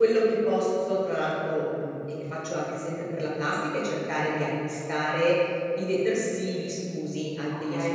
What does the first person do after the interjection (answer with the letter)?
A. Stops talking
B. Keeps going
B